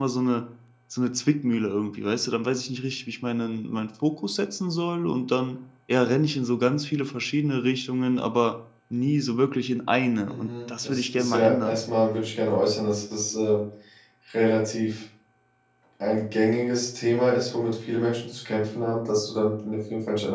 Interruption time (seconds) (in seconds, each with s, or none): 10.2 s